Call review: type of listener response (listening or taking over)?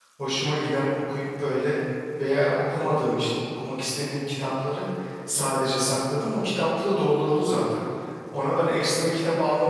listening